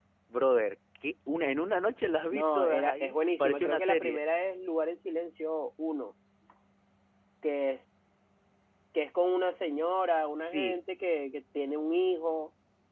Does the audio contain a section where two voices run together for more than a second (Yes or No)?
Yes